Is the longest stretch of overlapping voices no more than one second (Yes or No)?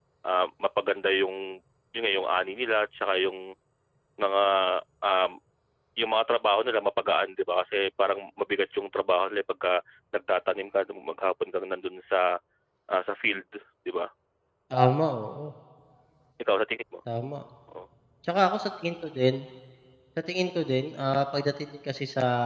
Yes